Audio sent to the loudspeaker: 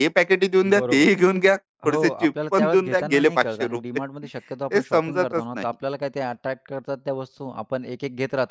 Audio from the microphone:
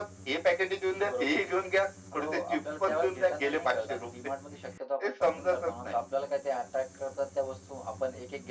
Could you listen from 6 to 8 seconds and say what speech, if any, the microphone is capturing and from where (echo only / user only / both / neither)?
echo only